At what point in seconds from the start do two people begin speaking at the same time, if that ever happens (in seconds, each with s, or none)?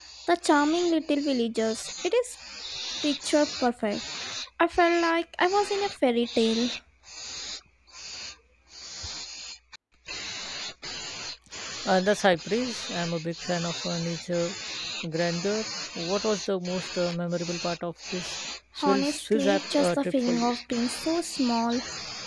18.8 s